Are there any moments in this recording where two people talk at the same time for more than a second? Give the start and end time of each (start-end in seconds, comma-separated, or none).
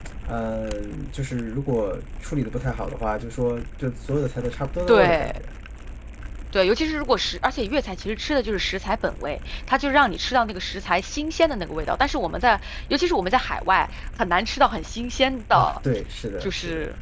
none